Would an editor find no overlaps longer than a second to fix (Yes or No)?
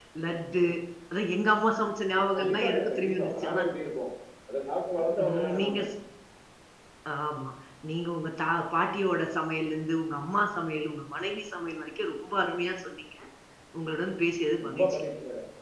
No